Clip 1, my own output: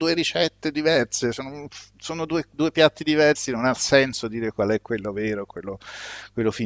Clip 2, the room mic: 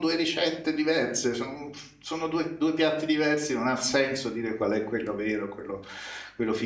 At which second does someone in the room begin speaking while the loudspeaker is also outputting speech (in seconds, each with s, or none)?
none